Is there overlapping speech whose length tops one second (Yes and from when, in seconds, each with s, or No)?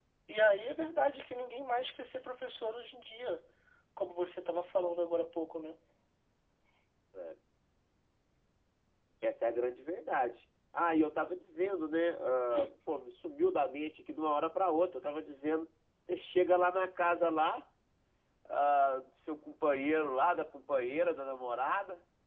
No